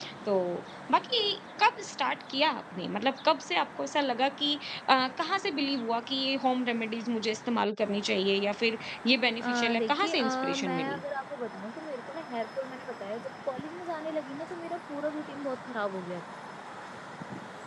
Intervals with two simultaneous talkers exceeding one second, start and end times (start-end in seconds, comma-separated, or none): 9.4-11.0